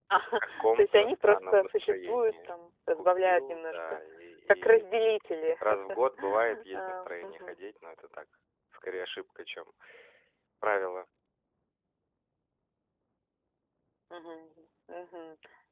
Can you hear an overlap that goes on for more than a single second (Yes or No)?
Yes